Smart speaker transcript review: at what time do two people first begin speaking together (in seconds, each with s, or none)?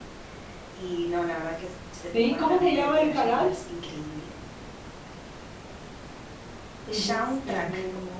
2.1 s